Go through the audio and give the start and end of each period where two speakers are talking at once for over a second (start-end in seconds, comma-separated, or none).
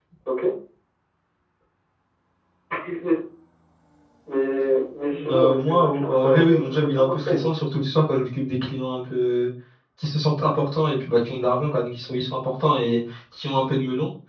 5.1-7.5